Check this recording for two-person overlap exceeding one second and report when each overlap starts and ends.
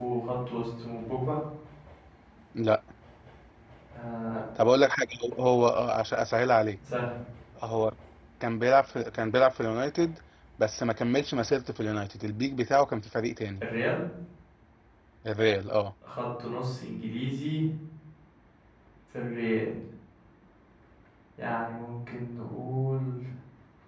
none

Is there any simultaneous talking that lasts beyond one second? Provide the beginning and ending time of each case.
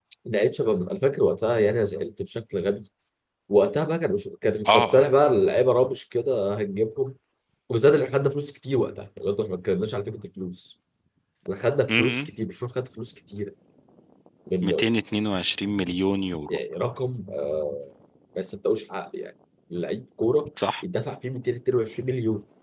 none

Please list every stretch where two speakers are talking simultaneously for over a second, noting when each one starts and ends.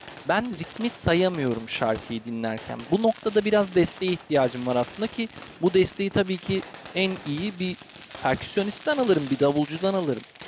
none

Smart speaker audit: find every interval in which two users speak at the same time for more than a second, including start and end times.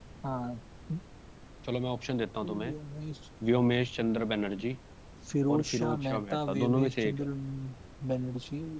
5.5-7.2

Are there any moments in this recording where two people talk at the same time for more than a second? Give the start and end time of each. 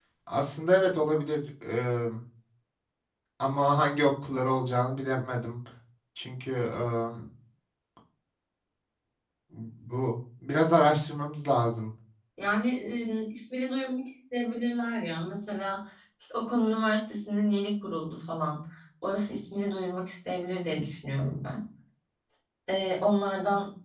none

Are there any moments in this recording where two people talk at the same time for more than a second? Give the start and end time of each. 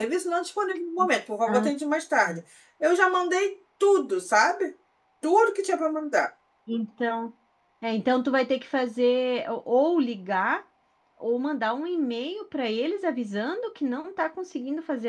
none

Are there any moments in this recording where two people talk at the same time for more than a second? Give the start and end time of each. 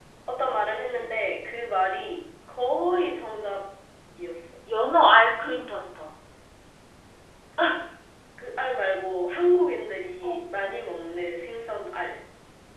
none

